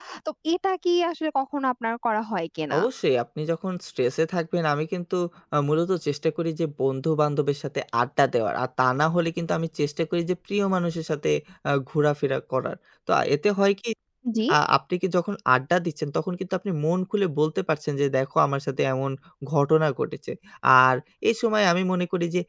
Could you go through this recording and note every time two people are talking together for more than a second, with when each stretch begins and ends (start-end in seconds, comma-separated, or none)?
none